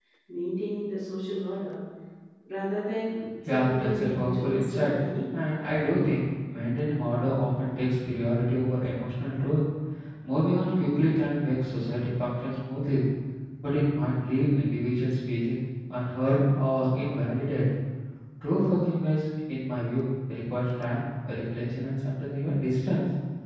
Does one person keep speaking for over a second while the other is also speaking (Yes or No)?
Yes